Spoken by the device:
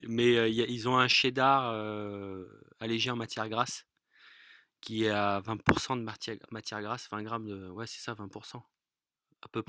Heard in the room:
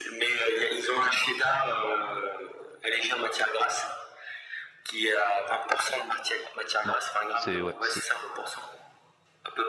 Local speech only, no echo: Non, c'est ouais, c'est

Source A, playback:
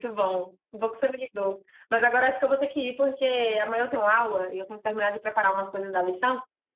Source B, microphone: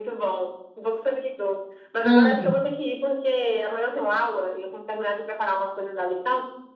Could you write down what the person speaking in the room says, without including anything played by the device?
hum.

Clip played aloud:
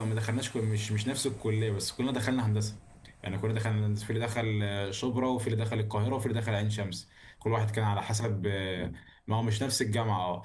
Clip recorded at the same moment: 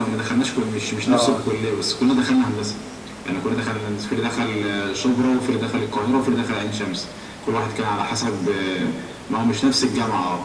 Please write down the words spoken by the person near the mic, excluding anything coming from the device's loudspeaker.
اه

